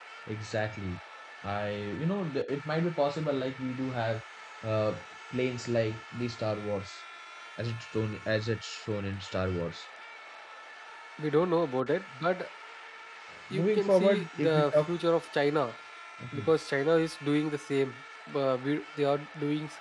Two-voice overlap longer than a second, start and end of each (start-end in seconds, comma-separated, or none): 13.5-14.9